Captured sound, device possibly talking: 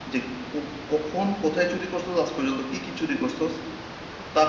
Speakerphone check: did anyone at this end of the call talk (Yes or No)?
Yes